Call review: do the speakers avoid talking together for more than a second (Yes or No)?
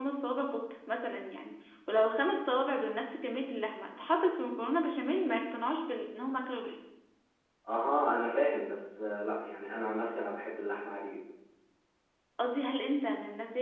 Yes